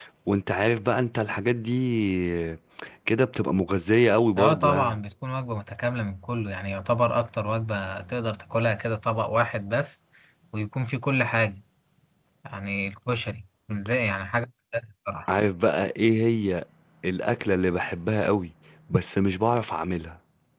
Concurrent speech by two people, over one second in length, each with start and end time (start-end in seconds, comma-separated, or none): none